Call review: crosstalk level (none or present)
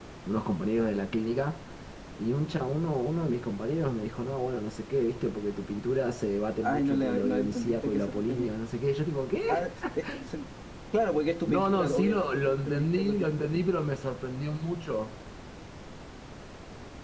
present